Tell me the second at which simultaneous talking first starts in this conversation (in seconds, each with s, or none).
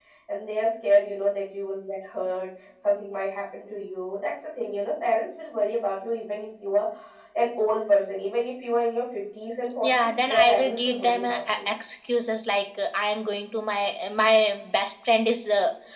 9.8 s